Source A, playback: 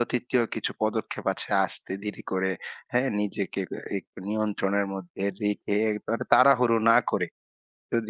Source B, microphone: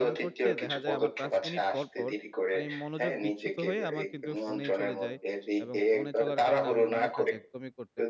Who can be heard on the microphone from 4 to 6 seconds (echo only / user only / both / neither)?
both